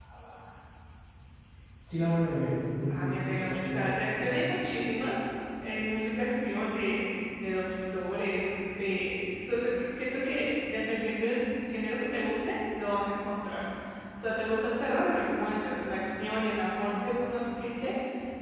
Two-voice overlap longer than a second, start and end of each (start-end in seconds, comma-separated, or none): 2.9-4.5